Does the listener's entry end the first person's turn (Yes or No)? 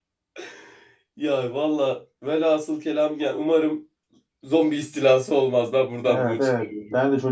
Yes